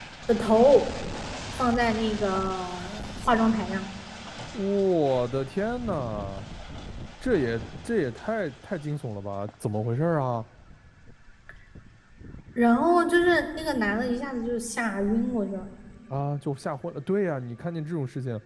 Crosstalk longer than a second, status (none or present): none